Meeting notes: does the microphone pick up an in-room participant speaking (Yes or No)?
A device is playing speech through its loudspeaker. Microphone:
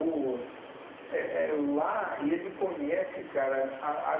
No